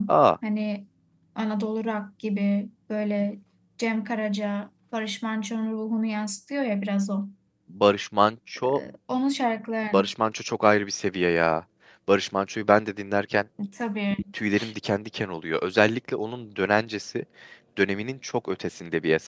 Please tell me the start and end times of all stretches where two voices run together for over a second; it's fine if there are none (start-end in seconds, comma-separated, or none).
none